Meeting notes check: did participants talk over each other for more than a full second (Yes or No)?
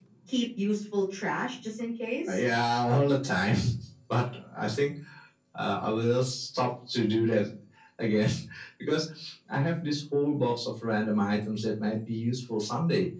No